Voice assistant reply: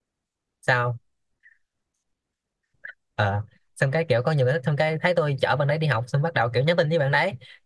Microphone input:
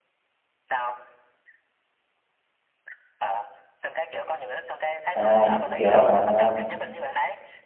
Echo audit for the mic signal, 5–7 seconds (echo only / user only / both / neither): both